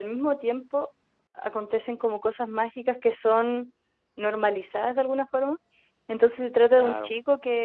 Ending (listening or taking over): listening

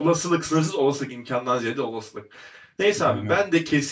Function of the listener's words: listening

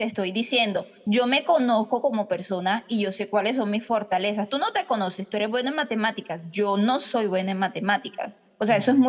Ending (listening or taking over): listening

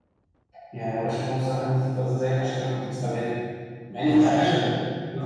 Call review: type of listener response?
taking over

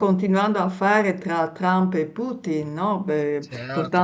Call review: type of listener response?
taking over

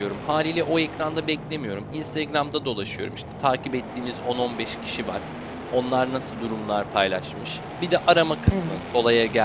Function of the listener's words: listening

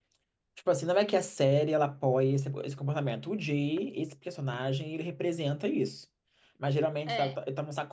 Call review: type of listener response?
listening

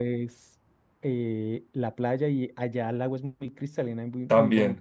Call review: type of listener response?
taking over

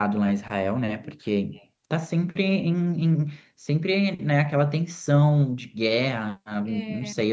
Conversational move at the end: listening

